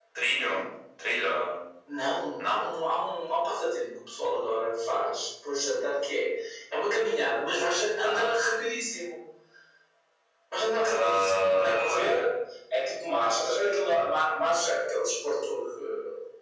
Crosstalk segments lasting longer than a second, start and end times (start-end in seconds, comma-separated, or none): 10.8-12.2